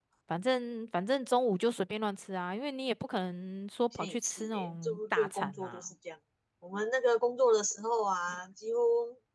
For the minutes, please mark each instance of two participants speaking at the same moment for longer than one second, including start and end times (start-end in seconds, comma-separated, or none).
3.9-5.8